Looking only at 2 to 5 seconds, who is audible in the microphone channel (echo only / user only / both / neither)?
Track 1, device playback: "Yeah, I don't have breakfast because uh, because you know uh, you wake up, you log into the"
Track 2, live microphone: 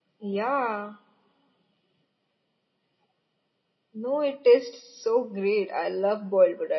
user only